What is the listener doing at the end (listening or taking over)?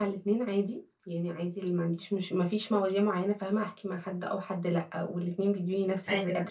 listening